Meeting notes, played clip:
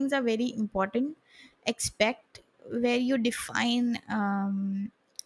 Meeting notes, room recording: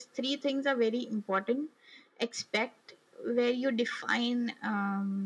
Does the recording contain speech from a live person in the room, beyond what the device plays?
No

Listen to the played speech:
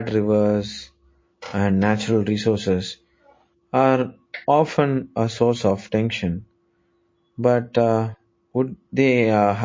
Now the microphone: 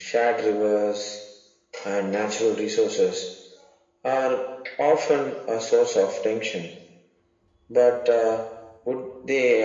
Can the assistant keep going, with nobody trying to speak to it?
Yes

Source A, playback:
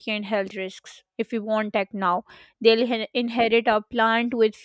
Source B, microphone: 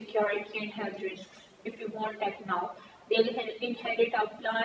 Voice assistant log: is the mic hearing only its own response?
Yes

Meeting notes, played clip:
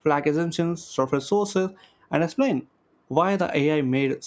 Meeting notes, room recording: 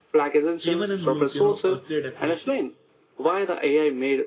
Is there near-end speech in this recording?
Yes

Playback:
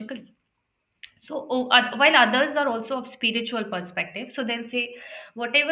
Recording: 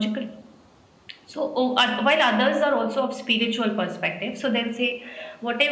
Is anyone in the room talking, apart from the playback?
No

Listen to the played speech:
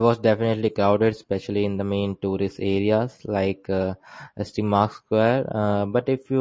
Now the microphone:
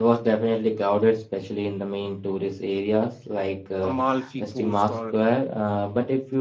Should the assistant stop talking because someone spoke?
Yes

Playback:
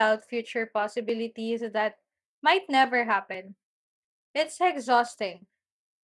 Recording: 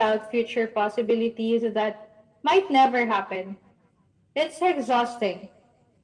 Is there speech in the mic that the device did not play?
No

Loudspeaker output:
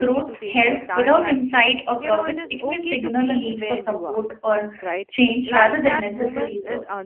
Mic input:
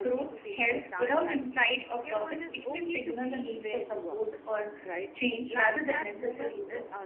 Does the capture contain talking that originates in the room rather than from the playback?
No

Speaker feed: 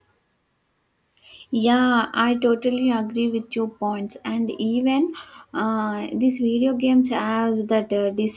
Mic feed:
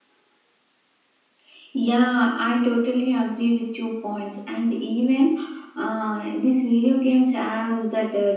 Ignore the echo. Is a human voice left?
No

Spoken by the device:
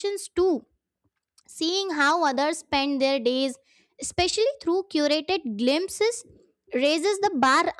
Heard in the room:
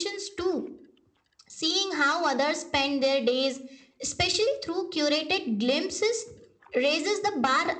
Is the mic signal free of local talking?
Yes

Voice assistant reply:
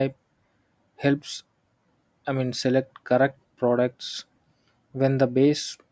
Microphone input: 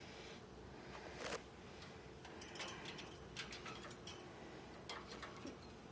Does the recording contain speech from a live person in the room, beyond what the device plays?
No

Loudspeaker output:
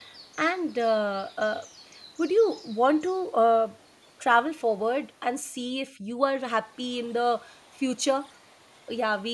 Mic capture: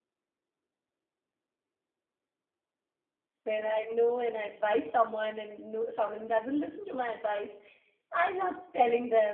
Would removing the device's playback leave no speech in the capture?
No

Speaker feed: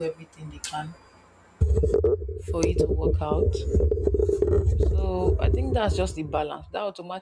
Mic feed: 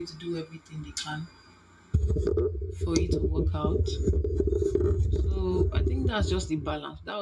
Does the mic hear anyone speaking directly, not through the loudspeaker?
No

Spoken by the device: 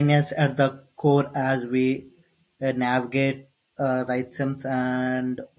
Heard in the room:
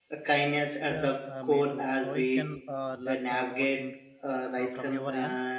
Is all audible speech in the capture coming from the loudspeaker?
No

